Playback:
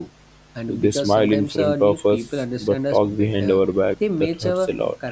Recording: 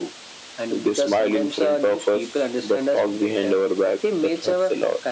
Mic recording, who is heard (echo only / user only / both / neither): echo only